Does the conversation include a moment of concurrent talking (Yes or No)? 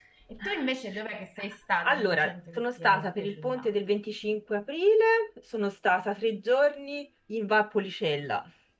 Yes